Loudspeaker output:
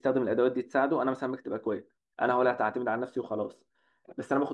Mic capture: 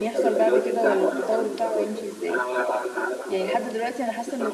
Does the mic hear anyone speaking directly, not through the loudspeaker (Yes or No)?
Yes